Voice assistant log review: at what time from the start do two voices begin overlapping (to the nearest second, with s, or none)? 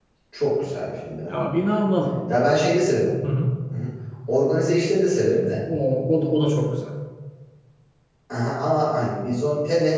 none